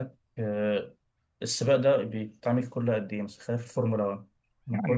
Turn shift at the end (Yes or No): Yes